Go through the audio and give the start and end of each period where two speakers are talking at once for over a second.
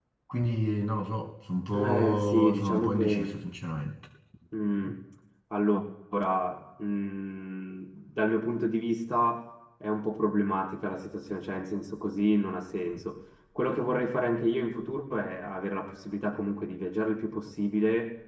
1.7-3.4

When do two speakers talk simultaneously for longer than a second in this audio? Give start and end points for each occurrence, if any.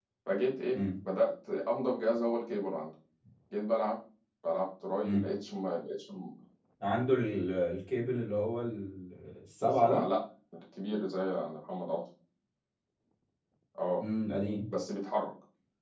none

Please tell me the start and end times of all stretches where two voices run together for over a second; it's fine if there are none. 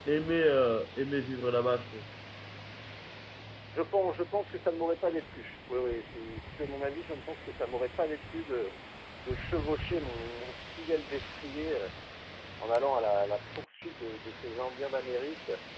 none

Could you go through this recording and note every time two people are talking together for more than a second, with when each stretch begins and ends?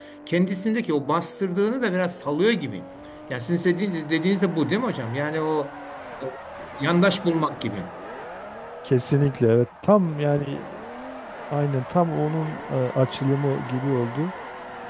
none

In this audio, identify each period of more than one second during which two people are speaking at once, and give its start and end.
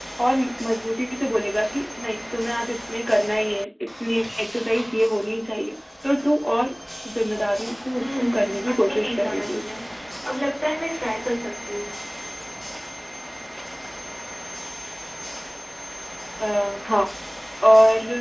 8.0-9.6

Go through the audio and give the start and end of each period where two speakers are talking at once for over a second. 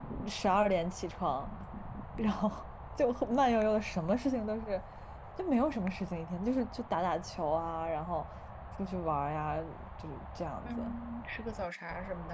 none

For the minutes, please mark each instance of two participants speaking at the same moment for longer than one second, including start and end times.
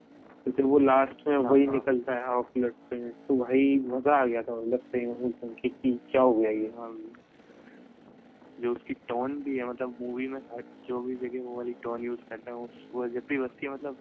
none

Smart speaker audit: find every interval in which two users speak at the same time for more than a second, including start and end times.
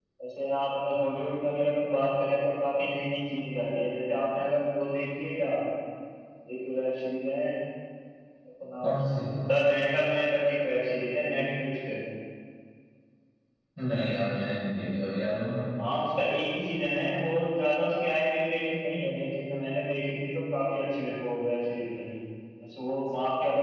none

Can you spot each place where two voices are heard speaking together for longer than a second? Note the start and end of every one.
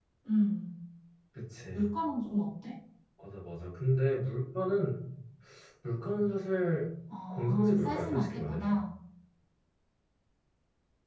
7.3-8.8

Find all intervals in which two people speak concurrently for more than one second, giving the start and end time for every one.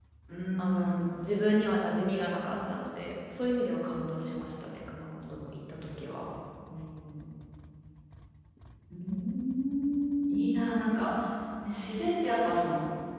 none

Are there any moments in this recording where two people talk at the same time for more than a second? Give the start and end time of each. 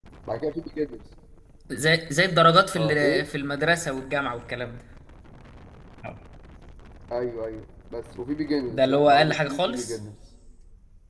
8.7-10.0

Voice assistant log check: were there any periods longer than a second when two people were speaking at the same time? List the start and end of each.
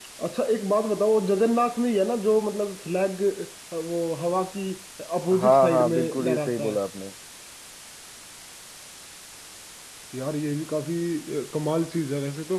5.4-6.8

